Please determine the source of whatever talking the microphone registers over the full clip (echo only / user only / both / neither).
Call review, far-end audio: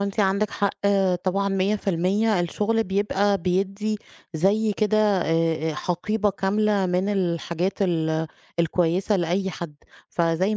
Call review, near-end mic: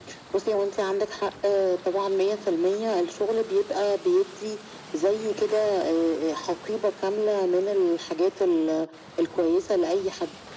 echo only